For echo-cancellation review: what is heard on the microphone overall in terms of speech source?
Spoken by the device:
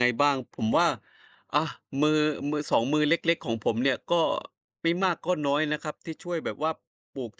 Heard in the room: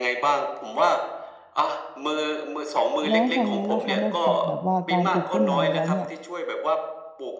both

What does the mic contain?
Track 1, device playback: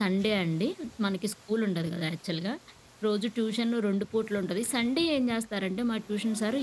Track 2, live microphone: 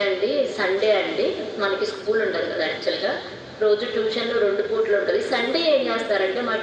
echo only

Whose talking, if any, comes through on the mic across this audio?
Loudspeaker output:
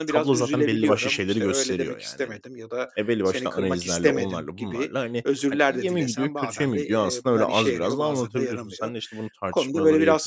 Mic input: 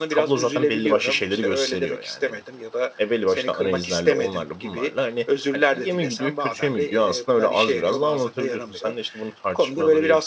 echo only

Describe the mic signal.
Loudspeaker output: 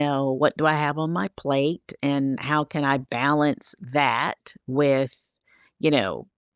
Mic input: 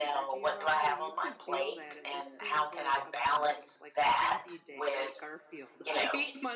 both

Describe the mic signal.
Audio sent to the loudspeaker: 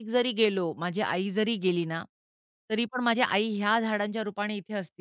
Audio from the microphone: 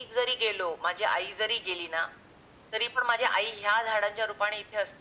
echo only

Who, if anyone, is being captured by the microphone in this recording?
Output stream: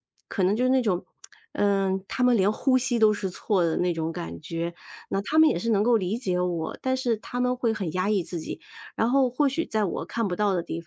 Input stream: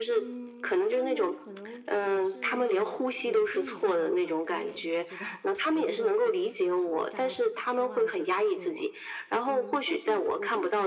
both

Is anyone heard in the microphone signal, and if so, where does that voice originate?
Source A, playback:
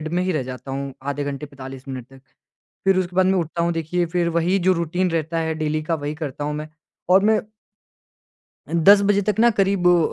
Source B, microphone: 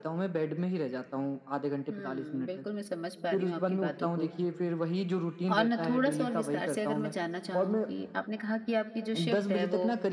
both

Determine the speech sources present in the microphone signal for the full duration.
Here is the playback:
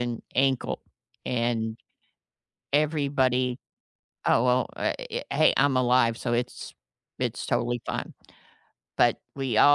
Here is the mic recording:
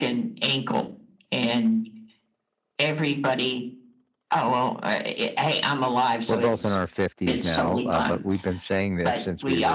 both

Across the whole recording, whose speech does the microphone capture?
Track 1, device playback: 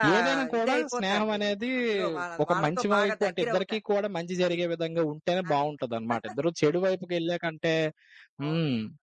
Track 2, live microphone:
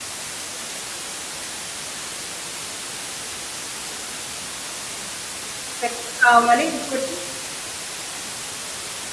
user only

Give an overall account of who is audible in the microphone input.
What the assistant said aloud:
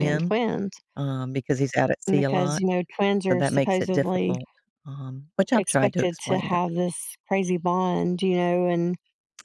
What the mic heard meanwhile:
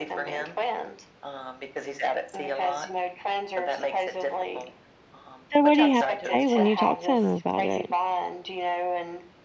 both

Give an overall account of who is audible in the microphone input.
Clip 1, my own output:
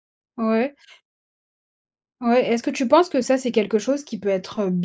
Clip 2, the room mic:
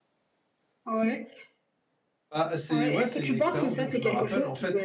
both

